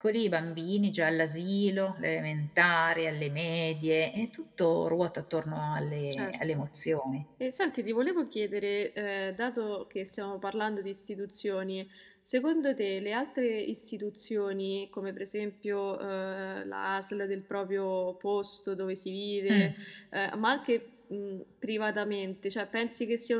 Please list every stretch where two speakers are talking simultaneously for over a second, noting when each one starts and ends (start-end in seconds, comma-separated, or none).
none